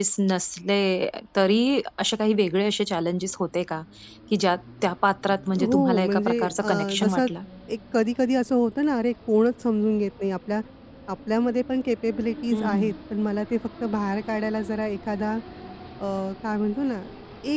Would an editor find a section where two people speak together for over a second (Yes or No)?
Yes